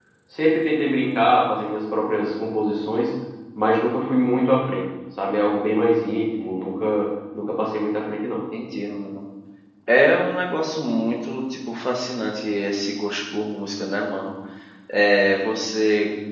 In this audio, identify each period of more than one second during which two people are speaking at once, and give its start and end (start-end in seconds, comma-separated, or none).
none